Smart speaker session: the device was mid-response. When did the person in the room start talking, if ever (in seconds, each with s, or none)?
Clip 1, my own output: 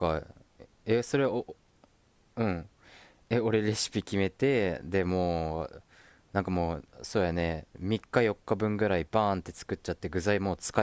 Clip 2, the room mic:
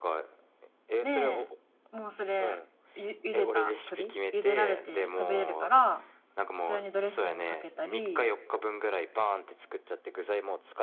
1.0 s